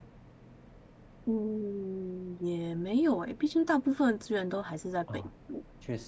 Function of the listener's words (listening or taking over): taking over